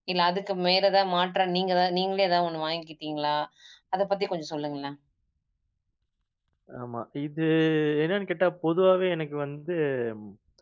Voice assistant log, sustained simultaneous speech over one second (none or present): none